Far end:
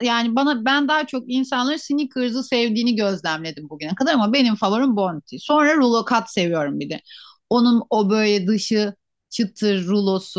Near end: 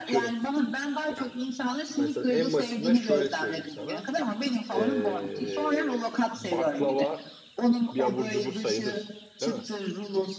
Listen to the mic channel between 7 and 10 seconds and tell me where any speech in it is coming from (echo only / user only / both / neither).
both